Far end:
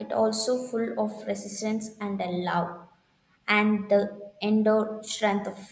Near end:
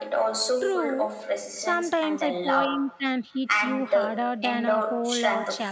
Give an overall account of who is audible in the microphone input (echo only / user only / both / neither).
both